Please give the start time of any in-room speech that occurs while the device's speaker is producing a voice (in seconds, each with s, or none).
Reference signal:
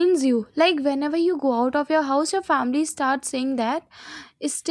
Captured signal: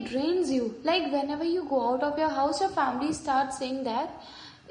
none